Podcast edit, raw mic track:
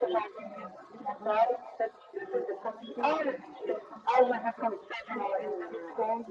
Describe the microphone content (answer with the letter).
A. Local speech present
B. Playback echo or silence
B